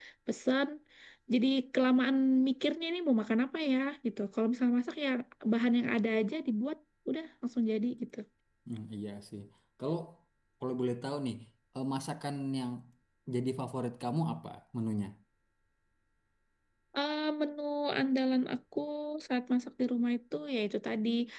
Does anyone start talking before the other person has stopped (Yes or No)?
No